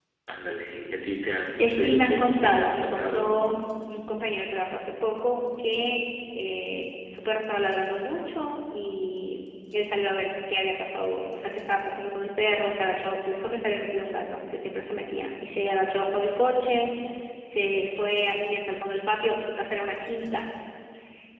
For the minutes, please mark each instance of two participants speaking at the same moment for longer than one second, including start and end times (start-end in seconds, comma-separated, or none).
1.6-3.4